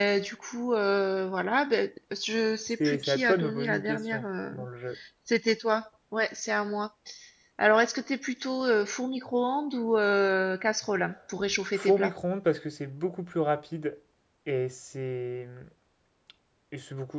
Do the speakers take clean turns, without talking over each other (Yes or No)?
No